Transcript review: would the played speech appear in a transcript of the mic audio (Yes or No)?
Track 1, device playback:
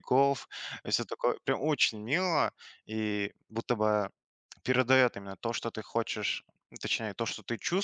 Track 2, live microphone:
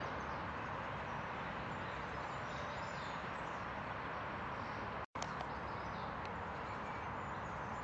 No